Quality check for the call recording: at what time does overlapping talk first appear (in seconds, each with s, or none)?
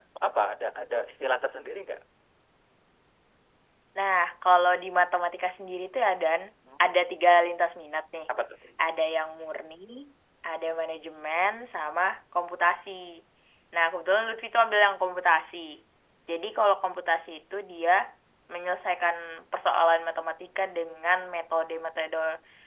none